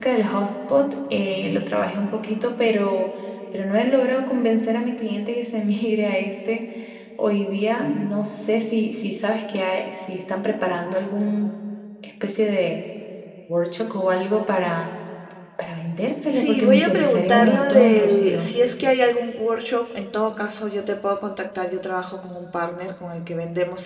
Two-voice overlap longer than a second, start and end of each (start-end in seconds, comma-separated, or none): 16.3-18.5